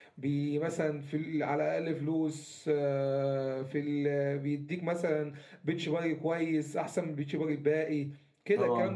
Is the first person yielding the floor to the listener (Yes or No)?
No